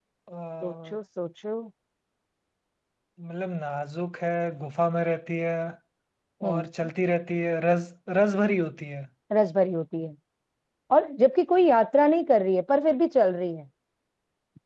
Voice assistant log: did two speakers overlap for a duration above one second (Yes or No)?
No